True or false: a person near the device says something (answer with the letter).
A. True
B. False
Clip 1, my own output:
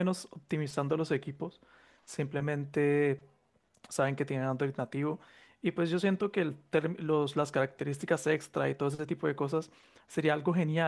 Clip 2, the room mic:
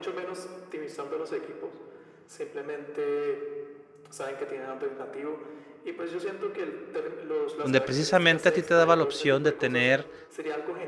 A